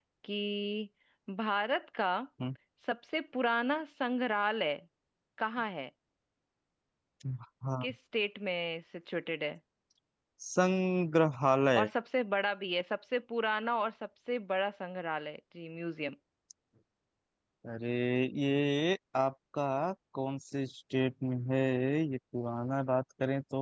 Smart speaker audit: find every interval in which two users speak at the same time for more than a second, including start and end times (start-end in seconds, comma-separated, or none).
none